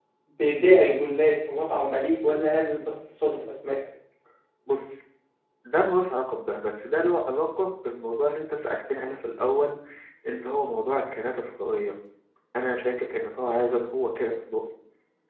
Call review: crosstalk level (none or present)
none